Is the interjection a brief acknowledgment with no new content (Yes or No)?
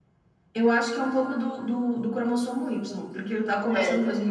Yes